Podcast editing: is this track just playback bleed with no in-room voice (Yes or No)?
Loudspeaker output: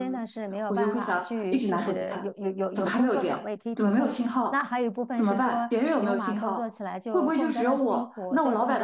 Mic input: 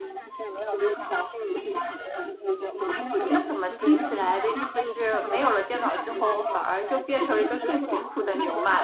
No